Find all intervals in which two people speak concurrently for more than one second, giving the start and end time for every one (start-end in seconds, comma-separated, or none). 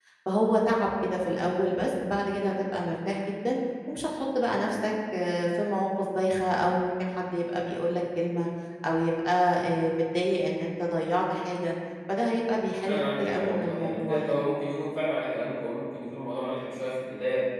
12.8-14.4